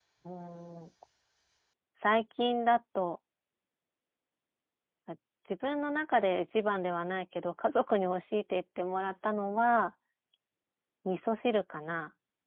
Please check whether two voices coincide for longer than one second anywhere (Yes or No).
No